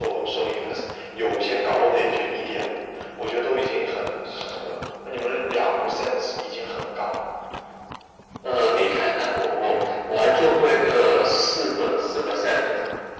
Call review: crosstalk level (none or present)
none